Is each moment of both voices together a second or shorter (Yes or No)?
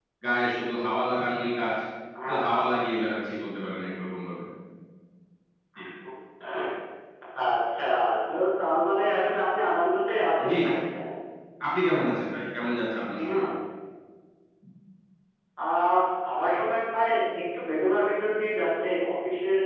Yes